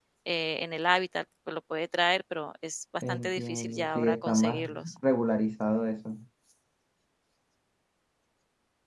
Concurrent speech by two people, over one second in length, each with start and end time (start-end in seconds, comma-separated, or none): 3.1-4.7